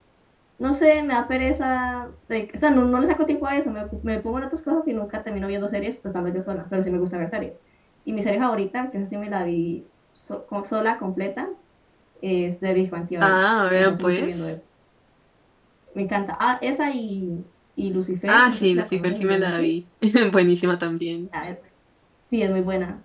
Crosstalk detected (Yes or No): Yes